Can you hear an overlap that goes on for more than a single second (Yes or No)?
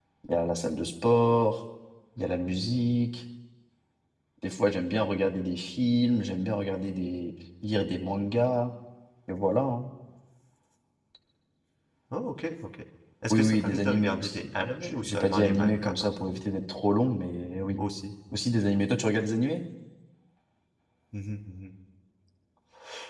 Yes